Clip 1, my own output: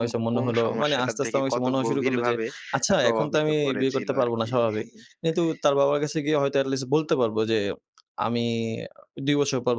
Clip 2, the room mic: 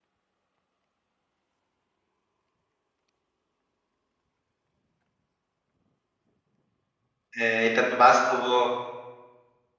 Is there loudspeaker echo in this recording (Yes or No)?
No